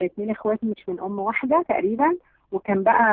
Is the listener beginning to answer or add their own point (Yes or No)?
No